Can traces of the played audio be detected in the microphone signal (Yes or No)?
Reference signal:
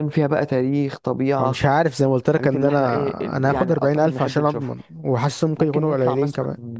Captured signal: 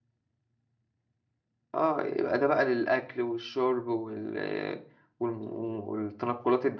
No